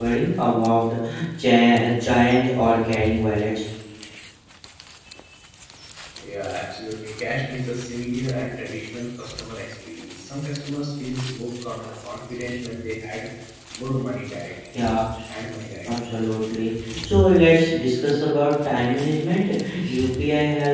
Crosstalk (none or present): none